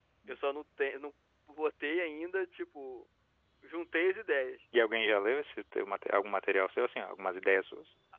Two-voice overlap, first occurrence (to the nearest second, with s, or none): none